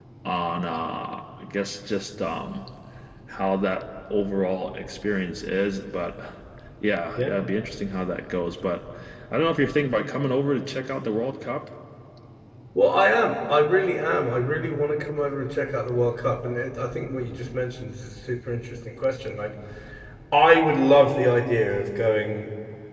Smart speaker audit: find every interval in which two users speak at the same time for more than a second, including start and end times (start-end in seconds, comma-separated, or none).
none